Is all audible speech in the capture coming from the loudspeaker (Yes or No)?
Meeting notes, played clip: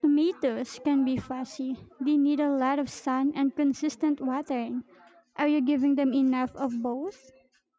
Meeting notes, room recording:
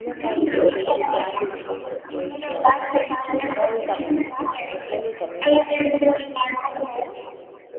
No